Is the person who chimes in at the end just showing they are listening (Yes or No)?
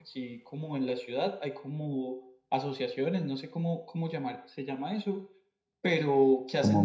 Yes